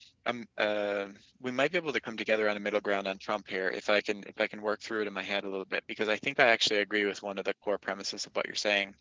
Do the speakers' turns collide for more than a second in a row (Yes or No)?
No